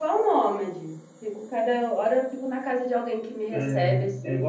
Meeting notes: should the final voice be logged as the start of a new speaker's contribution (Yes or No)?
Yes